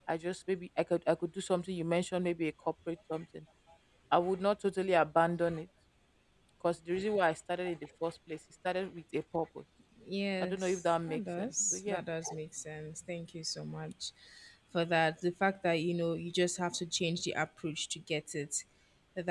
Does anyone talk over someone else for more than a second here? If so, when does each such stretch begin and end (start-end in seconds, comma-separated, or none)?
10.4-12.0